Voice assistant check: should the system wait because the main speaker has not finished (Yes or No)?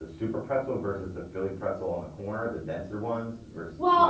No